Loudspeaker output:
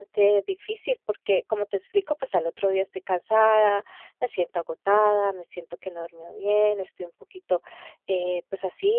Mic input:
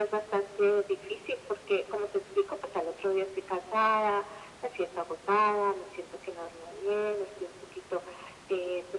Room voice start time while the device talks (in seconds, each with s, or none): none